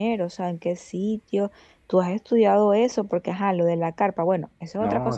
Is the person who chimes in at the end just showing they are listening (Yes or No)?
No